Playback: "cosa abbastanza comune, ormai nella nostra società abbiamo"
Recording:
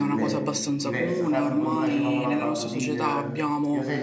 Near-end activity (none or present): present